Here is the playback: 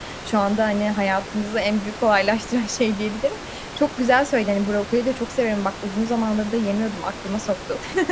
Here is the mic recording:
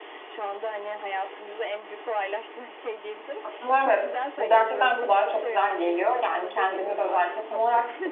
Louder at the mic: user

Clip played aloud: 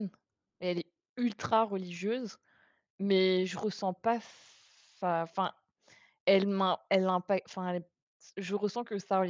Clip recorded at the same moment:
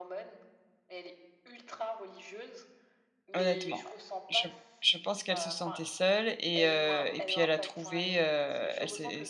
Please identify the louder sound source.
user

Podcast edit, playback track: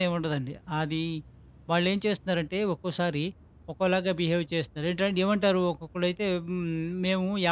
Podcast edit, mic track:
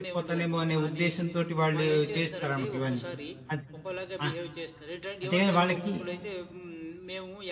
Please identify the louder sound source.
user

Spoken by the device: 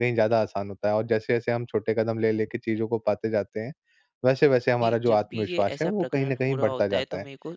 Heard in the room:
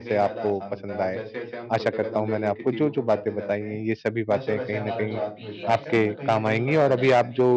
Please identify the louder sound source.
user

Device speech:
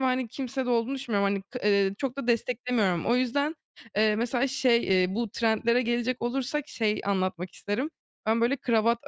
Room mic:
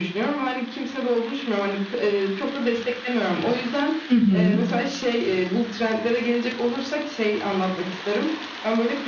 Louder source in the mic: user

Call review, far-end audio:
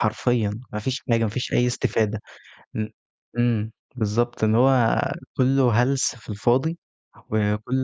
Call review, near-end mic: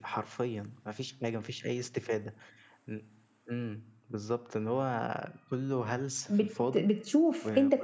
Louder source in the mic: user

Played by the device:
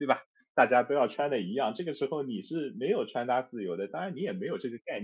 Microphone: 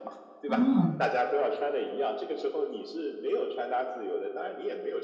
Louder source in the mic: user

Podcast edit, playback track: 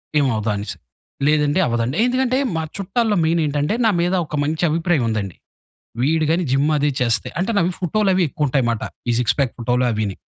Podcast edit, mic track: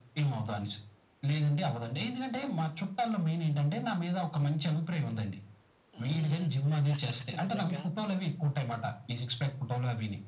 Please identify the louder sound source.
echo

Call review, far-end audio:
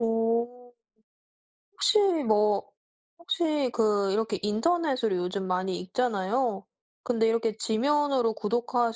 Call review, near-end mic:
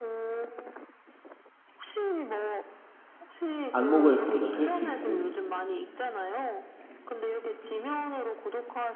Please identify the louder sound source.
user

